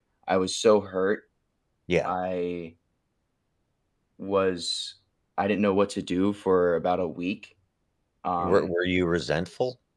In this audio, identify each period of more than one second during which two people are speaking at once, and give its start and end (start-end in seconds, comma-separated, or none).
none